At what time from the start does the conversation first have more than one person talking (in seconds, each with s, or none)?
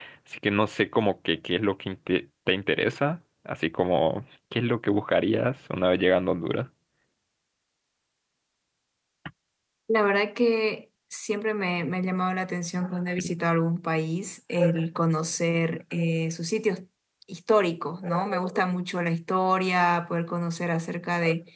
none